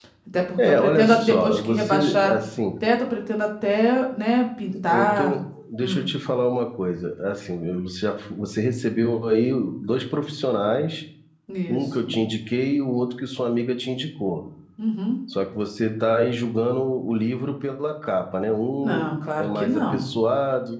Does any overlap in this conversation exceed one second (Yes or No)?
Yes